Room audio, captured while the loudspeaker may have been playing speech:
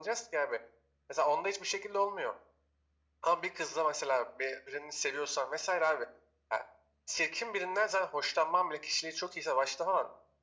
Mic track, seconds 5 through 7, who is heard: echo only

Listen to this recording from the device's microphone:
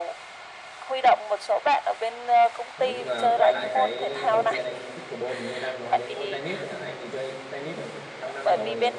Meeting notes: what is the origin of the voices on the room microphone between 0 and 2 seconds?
echo only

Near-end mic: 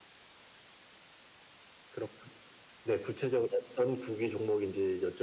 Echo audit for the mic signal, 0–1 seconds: neither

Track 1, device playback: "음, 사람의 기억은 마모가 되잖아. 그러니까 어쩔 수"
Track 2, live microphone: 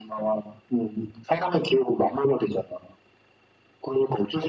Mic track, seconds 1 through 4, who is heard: echo only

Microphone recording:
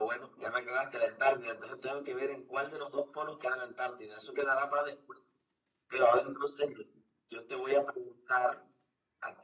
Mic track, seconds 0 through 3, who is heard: echo only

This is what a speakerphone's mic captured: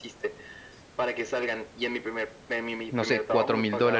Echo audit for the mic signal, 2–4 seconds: both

